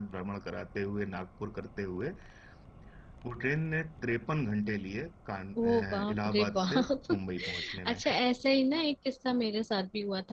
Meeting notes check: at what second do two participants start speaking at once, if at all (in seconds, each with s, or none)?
5.6 s